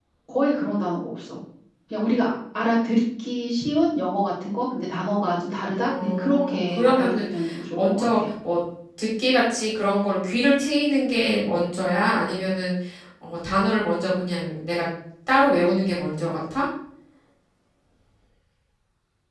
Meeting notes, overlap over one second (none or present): present